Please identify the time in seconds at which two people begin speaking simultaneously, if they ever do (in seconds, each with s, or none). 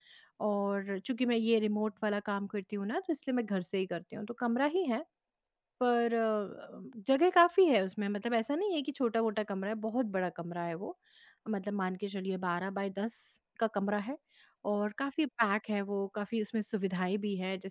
none